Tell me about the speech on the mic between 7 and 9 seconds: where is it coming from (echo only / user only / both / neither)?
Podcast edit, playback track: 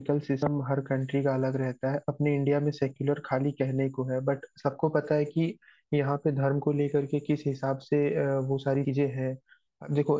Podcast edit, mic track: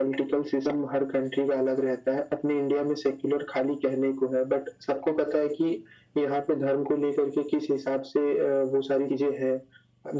echo only